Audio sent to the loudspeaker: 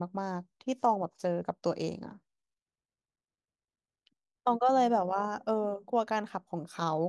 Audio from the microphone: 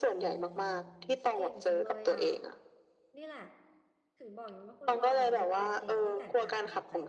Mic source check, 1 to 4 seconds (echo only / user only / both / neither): both